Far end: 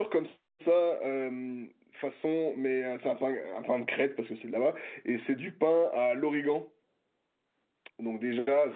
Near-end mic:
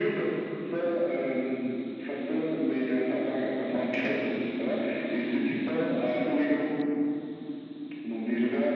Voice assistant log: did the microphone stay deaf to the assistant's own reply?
No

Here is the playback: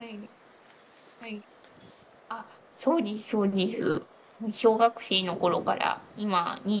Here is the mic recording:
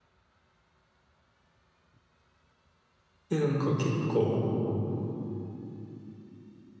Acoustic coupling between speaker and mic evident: No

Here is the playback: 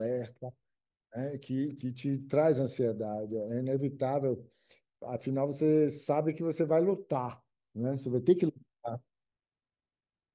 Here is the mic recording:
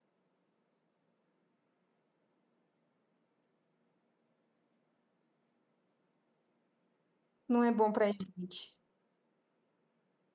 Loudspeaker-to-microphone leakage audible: No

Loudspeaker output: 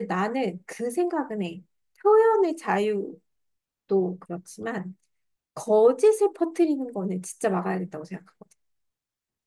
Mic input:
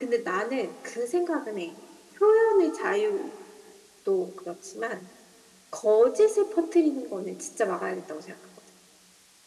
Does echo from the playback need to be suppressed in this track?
Yes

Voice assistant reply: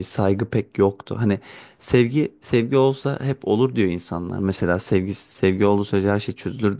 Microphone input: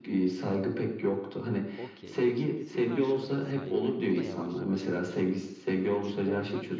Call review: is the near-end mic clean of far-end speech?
No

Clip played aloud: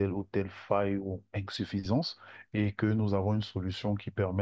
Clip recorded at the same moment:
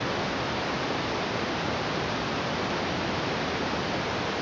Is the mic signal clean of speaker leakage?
Yes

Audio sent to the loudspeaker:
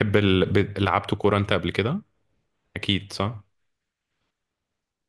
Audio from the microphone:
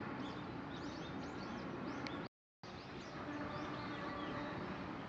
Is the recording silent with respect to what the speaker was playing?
Yes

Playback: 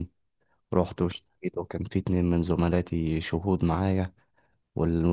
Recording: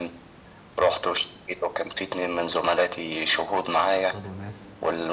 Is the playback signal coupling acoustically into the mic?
Yes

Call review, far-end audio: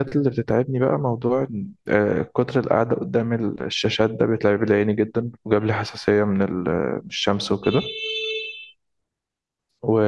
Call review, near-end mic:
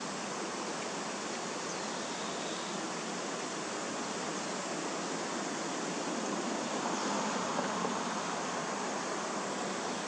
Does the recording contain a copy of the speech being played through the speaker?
No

